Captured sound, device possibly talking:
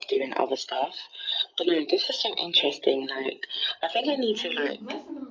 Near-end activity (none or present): present